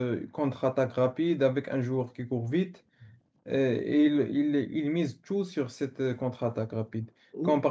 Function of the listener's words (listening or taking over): listening